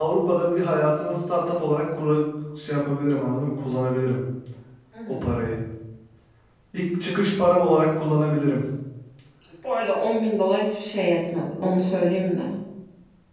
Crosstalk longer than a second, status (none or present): none